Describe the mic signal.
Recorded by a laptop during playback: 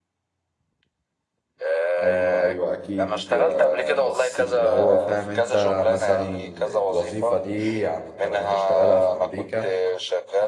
both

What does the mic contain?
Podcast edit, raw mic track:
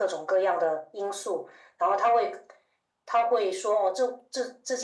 echo only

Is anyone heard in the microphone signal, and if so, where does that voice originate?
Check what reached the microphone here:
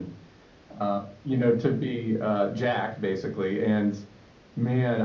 echo only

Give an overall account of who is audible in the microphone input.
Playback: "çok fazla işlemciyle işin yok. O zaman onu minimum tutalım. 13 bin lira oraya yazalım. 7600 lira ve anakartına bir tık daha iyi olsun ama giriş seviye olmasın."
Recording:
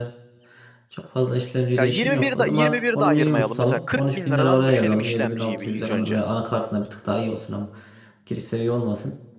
both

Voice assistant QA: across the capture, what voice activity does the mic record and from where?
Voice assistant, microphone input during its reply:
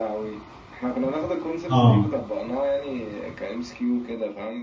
both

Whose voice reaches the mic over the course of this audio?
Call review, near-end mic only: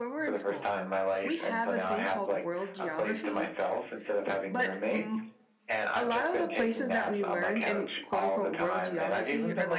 both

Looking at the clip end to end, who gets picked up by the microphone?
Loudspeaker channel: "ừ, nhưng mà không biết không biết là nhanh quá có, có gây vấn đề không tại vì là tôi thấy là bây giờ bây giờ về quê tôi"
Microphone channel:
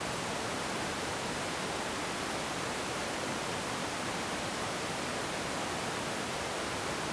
neither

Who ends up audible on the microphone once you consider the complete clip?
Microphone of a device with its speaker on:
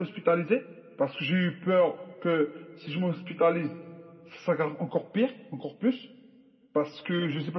echo only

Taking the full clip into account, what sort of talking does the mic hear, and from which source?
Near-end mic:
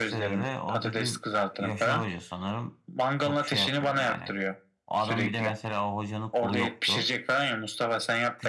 both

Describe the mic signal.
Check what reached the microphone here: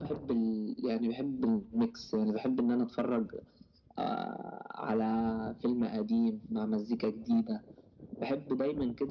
echo only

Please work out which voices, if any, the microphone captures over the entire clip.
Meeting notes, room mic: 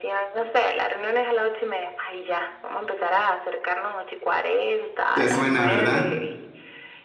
both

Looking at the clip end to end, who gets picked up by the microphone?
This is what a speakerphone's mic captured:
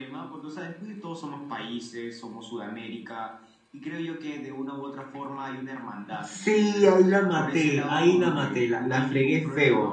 both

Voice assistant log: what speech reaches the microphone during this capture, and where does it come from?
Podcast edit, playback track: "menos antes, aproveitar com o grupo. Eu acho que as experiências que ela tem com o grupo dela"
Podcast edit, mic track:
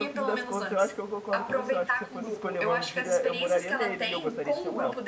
both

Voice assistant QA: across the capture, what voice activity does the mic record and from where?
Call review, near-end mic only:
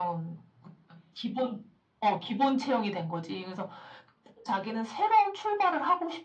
echo only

